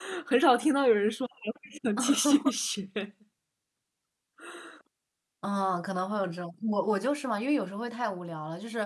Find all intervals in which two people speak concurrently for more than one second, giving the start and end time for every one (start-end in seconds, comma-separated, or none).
none